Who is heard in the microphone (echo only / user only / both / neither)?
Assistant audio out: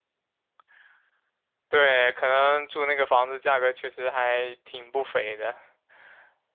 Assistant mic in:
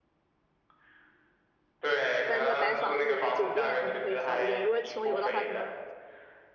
both